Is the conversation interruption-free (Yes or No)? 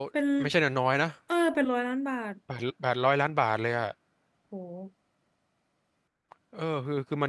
Yes